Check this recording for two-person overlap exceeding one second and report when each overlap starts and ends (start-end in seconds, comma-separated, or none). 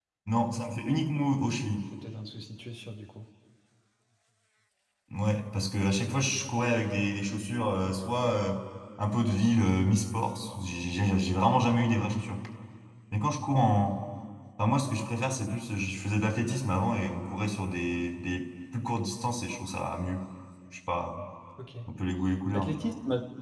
none